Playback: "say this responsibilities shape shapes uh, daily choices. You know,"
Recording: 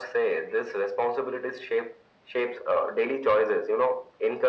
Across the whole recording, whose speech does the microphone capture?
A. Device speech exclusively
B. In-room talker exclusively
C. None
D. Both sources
A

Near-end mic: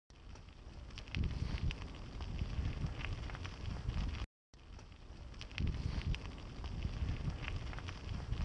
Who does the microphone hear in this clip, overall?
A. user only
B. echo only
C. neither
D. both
C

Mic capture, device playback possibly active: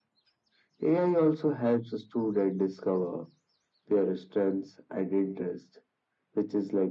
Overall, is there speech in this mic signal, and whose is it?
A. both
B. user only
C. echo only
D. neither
C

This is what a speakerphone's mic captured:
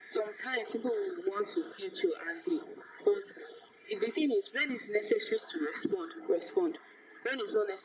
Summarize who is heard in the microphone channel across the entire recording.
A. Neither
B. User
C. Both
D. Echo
D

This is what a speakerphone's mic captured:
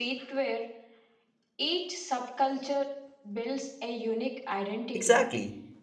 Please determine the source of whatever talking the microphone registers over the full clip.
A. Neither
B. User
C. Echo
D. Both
D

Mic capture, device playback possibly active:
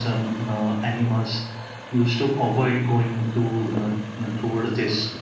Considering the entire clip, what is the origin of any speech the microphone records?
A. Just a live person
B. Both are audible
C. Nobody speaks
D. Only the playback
D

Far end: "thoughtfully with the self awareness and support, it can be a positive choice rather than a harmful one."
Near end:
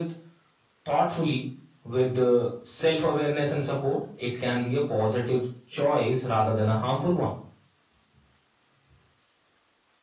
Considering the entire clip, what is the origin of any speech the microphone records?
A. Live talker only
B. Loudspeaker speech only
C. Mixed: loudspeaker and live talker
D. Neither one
B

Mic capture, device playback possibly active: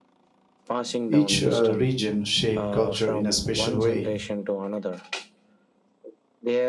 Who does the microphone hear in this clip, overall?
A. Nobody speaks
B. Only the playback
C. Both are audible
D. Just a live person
C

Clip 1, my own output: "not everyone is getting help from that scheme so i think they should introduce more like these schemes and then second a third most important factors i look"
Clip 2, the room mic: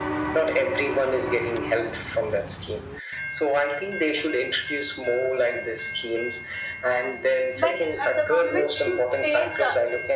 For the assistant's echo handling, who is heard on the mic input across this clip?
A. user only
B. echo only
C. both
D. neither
C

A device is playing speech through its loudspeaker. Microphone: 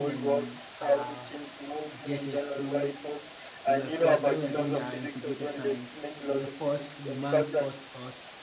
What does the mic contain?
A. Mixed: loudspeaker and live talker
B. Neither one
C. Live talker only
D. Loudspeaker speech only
A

